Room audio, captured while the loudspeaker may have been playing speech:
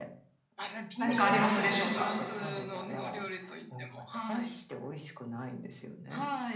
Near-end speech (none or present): present